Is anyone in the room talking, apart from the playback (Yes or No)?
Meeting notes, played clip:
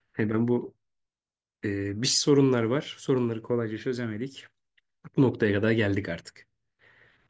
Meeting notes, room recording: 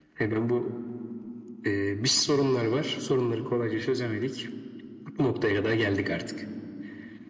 No